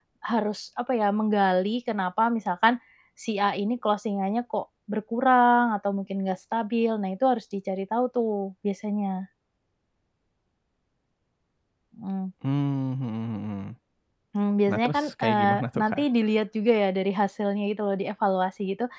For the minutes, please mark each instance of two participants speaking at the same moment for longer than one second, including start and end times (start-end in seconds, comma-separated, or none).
14.7-16.0